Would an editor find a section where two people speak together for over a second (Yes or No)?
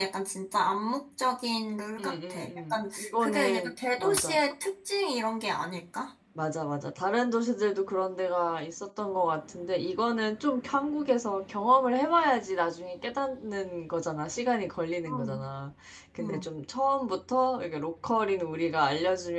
Yes